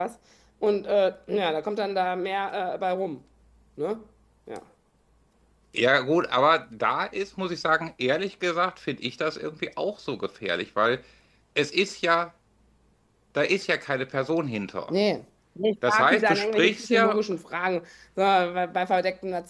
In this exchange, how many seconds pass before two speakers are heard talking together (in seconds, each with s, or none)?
15.9 s